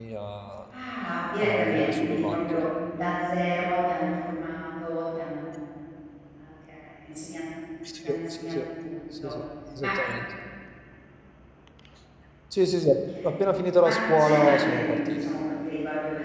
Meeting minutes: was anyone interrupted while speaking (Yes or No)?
Yes